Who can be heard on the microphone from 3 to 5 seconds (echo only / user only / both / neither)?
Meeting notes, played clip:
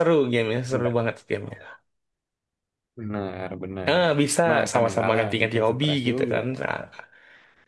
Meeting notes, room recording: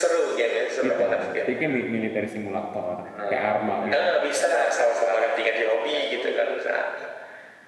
both